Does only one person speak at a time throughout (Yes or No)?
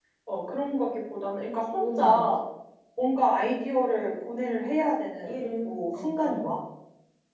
No